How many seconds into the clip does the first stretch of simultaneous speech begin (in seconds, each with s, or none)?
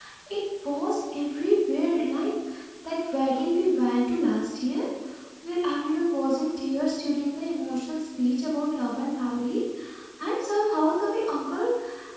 none